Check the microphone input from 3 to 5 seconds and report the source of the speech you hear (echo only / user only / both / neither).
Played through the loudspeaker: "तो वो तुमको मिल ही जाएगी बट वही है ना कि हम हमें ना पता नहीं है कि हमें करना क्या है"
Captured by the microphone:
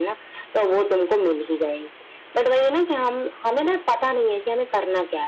echo only